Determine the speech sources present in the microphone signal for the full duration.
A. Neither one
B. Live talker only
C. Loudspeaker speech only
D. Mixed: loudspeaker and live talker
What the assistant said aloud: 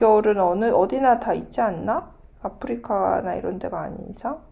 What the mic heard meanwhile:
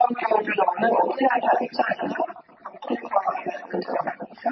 C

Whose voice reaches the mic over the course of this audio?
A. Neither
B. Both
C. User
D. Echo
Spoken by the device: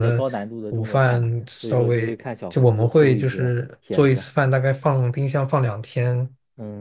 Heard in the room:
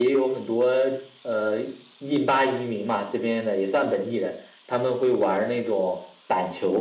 C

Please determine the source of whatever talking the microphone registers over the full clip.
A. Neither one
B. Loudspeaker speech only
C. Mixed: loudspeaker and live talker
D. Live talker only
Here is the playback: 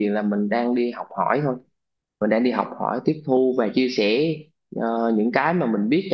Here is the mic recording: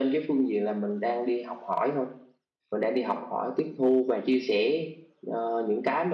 B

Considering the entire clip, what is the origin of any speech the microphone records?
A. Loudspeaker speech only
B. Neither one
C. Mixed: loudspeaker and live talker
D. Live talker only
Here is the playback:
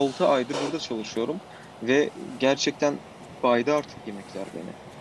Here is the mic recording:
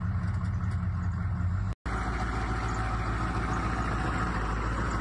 B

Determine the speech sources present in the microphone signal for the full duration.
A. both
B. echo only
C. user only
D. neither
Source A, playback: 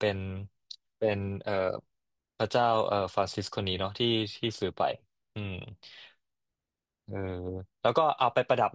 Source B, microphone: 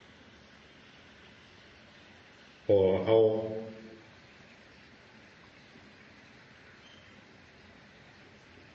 C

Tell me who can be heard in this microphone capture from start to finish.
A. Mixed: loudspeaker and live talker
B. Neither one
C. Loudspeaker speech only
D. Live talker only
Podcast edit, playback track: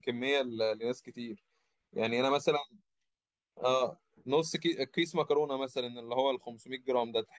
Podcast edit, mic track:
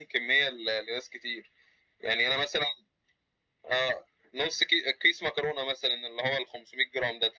C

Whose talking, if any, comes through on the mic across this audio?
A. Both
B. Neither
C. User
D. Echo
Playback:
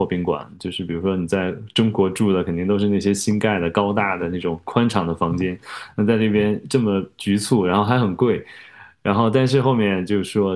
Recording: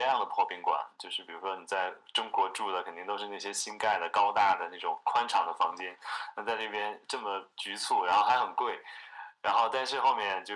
D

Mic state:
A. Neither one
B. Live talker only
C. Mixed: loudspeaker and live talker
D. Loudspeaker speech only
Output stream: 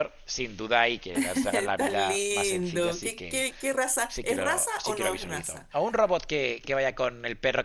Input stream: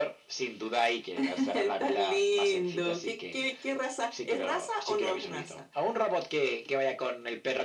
D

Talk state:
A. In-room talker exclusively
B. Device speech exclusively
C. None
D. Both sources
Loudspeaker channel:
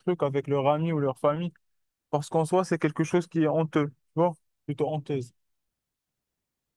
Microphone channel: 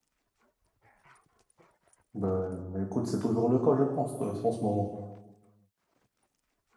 A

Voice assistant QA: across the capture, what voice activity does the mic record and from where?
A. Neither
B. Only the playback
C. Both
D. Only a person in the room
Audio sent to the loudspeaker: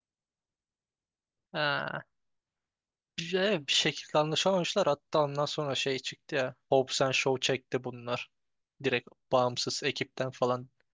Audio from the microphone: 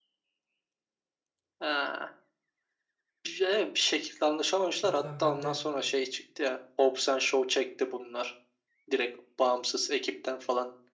C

